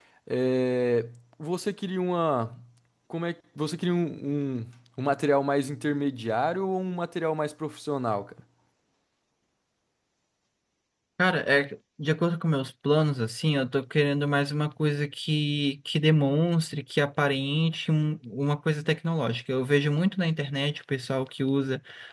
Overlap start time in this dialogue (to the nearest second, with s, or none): none